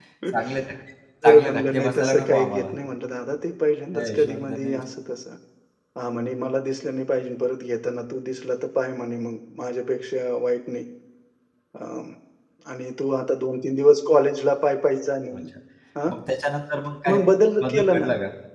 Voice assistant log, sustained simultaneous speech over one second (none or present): present